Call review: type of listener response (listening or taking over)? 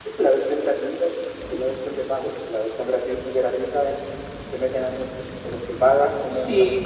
listening